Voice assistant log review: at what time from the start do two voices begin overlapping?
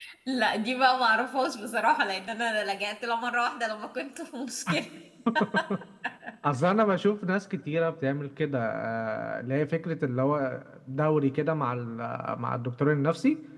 none

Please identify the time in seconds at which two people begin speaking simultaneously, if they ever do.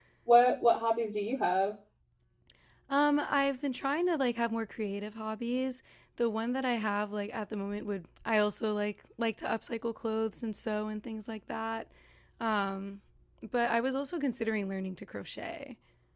none

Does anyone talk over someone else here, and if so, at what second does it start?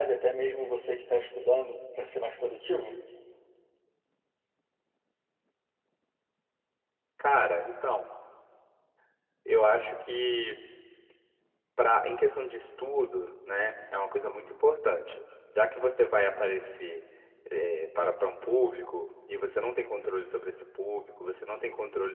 none

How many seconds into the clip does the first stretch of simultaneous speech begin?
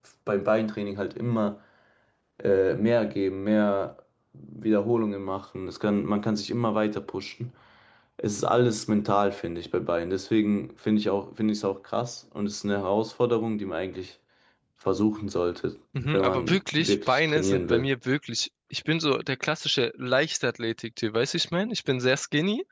15.9 s

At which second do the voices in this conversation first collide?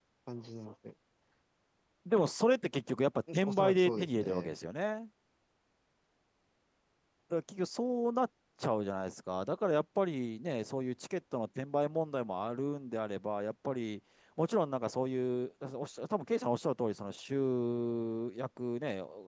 3.3 s

